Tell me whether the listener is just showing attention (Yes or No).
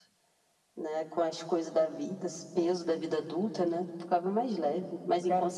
No